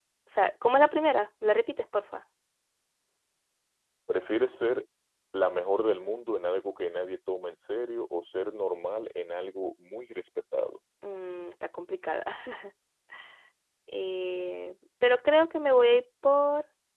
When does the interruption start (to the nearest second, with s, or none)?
none